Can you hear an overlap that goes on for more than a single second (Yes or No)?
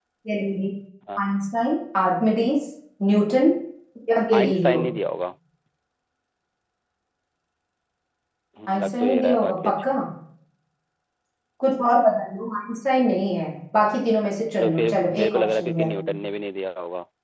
Yes